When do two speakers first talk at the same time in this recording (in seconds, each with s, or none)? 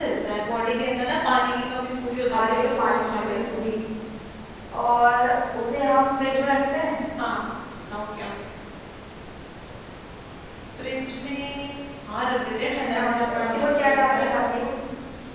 2.2 s